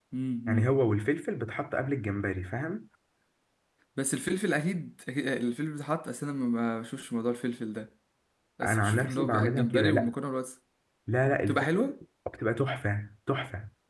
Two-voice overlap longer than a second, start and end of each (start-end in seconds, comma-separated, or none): 8.6-10.1